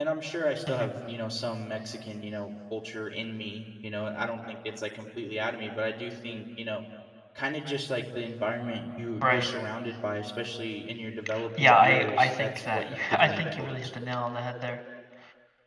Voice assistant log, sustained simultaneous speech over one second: present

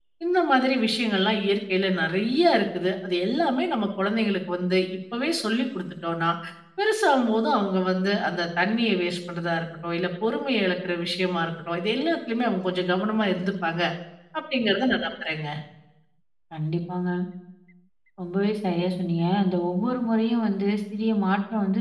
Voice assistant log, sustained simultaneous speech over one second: none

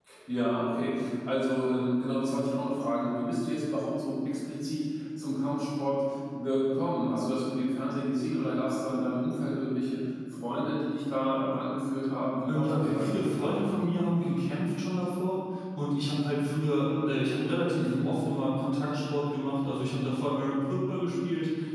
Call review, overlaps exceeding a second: present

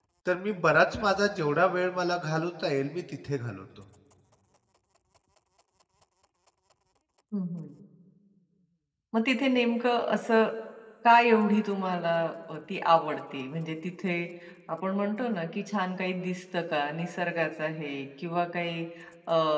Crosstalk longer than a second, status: none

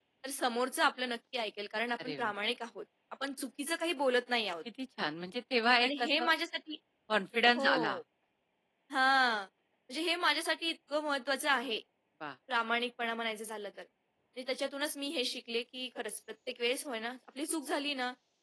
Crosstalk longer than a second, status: none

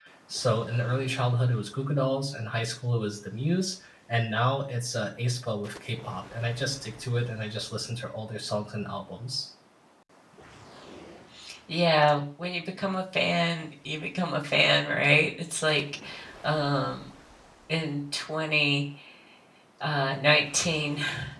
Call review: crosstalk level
none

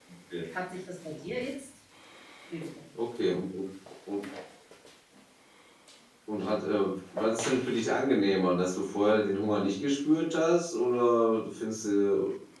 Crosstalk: none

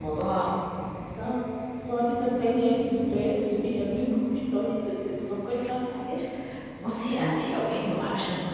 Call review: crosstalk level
none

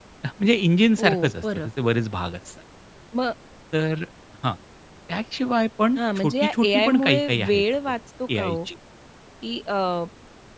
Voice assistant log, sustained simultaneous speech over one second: present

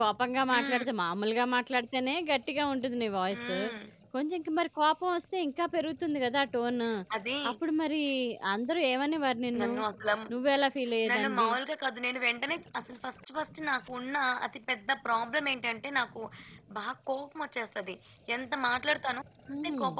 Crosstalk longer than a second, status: none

